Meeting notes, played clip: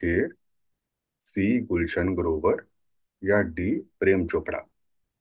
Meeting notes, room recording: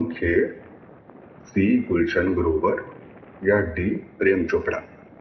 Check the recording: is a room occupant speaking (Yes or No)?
No